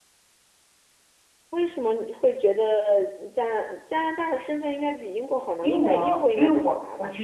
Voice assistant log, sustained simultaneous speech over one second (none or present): present